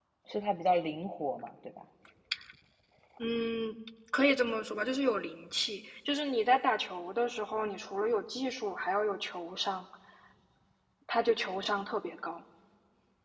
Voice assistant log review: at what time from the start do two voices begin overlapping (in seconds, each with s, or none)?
none